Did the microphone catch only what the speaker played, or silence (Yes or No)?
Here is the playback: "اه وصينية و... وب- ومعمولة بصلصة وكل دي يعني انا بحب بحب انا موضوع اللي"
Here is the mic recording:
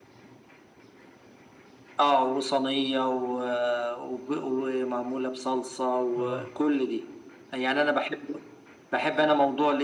No